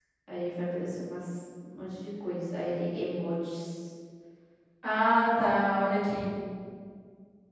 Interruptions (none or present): none